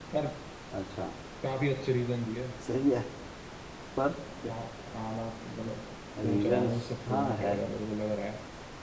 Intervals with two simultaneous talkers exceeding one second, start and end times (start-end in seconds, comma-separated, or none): 6.2-7.5